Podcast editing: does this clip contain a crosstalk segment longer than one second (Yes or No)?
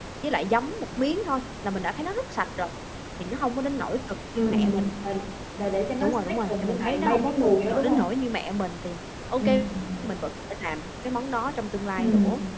Yes